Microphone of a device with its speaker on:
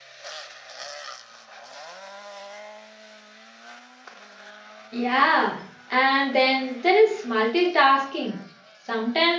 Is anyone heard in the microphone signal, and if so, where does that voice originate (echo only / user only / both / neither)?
user only